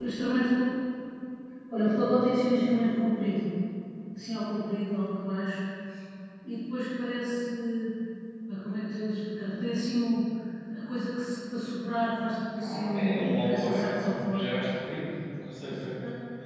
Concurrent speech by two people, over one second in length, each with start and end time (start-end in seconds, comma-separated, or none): 12.6-14.5